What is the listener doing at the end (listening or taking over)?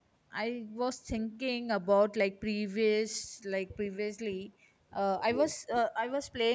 listening